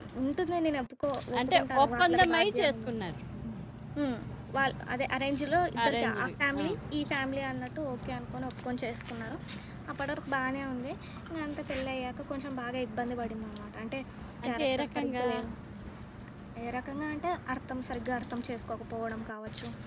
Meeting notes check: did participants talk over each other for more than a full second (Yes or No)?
Yes